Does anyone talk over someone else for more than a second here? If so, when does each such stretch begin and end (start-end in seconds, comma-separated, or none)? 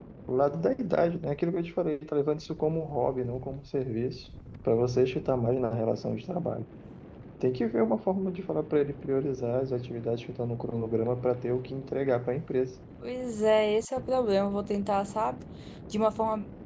none